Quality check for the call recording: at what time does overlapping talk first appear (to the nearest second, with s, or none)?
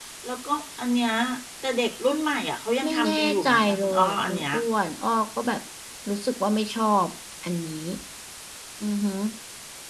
3 s